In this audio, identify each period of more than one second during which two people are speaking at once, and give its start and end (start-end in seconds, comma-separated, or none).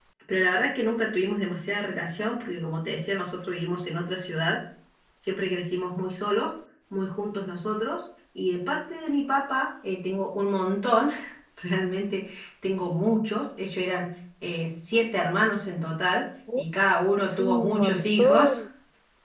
17.2-18.6